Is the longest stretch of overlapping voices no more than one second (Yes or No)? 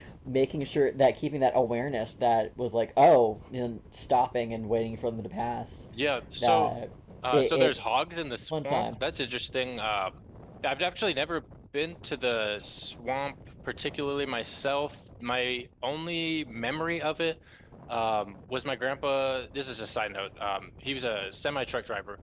Yes